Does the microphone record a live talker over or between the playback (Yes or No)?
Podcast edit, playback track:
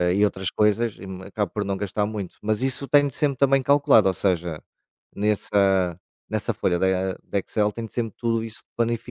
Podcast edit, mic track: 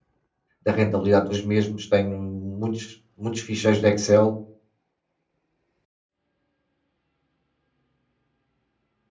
Yes